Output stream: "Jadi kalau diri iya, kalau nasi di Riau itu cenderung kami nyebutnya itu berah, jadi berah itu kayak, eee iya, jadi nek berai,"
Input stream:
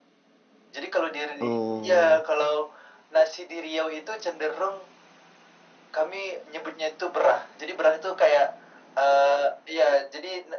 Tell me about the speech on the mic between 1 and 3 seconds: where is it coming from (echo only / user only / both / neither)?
both